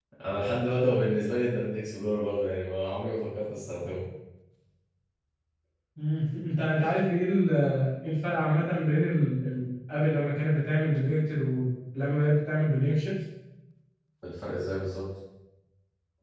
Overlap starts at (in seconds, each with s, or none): none